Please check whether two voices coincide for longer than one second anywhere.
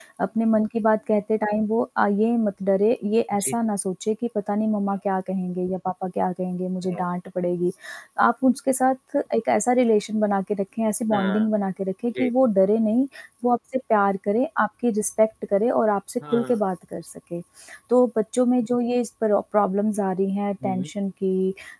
No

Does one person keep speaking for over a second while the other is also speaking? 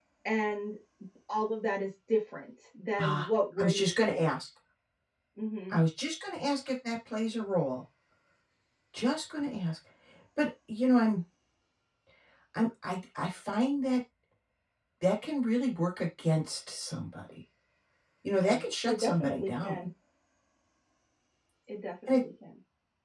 Yes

